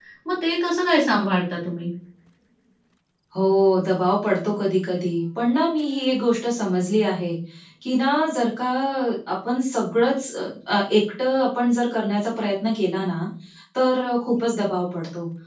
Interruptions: none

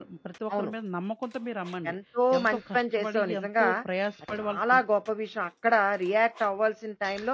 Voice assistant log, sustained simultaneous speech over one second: present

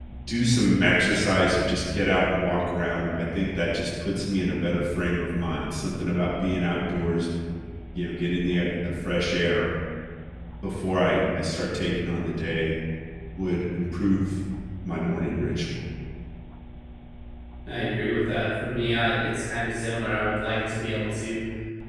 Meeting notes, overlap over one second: none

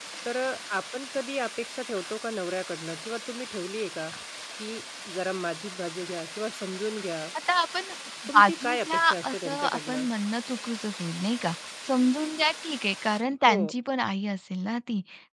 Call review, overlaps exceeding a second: present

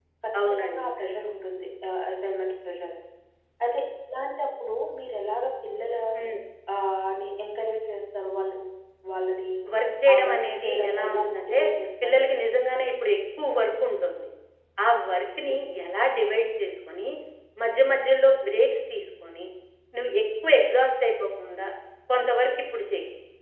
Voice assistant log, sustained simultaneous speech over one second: present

